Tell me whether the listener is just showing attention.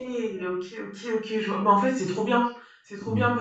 Yes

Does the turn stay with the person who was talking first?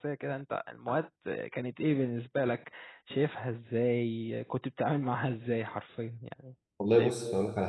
No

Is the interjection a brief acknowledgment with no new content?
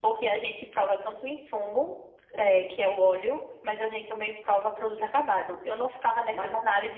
Yes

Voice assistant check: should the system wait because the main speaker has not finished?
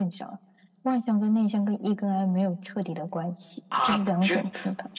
No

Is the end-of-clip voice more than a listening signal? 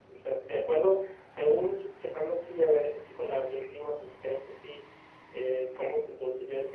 No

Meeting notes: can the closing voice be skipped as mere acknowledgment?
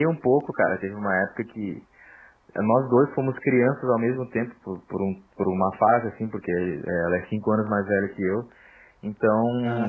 Yes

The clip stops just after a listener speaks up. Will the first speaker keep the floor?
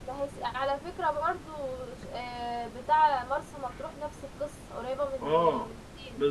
No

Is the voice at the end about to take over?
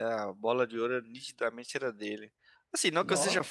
No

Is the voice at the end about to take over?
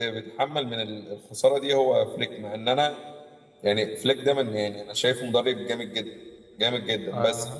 Yes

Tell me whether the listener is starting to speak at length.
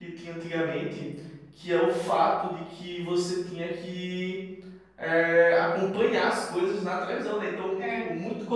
No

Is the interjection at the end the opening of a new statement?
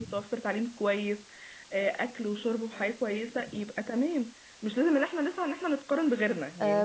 Yes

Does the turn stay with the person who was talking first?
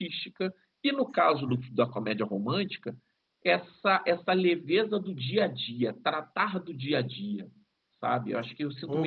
No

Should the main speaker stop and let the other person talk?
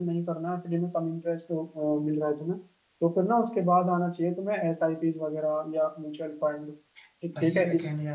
Yes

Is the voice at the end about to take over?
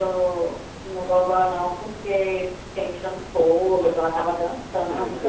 Yes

